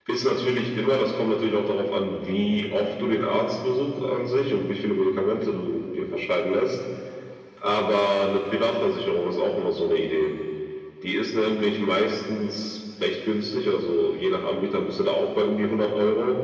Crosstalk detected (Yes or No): No